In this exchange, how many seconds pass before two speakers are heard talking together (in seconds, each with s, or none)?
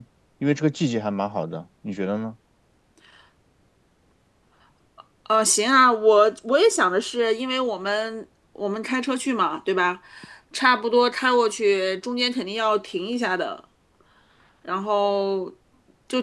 none